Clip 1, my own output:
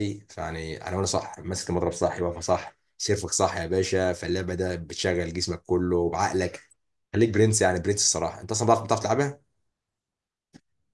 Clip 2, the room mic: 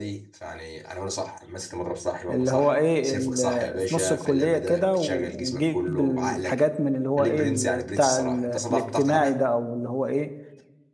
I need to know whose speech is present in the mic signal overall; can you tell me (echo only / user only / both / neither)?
both